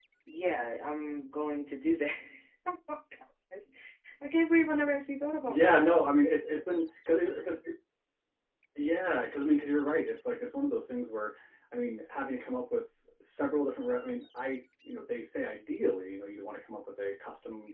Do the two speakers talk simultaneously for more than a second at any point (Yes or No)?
No